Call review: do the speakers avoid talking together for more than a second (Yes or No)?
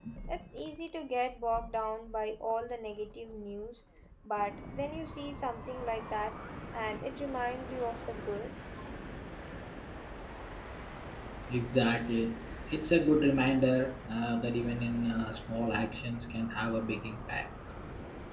Yes